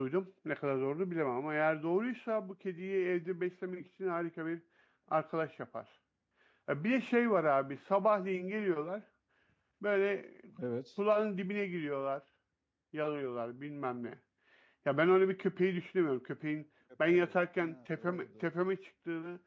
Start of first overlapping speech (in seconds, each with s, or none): 17.1 s